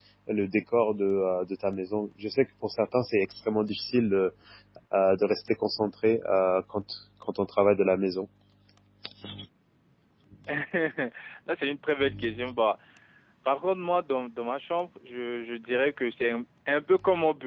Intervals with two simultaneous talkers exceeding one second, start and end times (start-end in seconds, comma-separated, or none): none